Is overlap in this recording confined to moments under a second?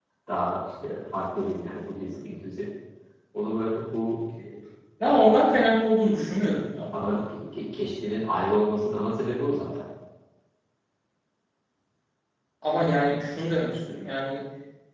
Yes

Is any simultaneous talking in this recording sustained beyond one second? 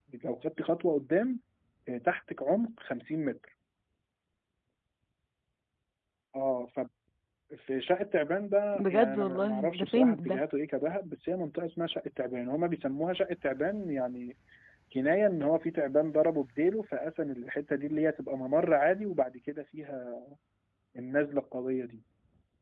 Yes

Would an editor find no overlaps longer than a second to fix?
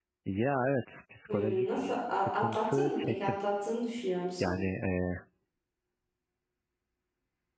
No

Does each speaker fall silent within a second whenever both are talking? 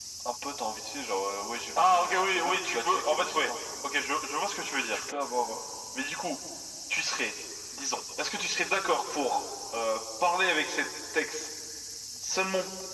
No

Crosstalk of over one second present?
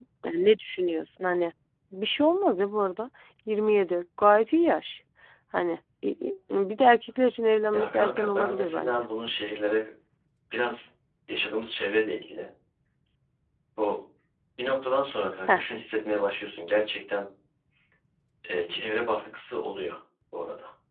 Yes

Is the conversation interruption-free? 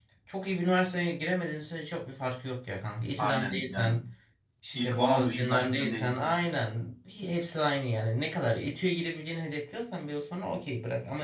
No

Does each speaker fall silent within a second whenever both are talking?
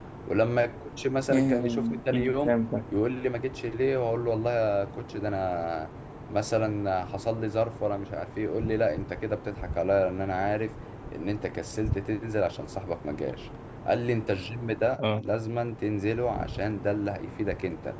No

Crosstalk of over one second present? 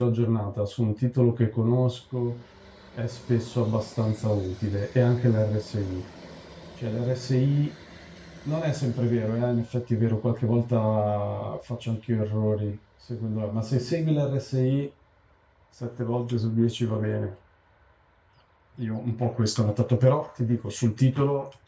No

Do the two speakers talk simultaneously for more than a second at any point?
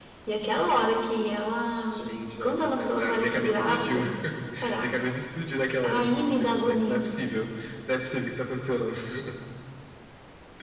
Yes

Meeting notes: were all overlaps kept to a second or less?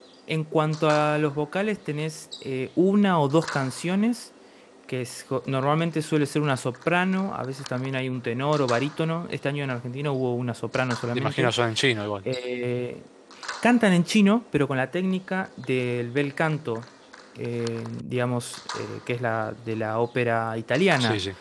Yes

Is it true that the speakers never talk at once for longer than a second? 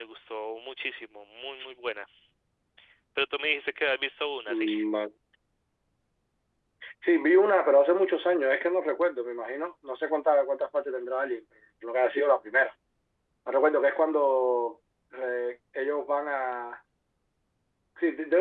Yes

